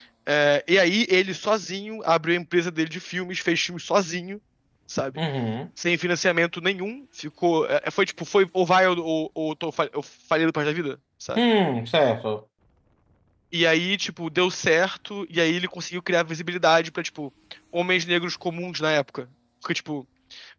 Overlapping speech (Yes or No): No